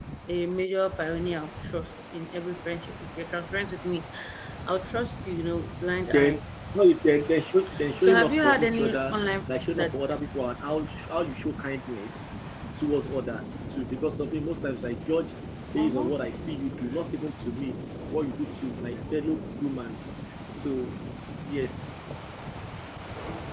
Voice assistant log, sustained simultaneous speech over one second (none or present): present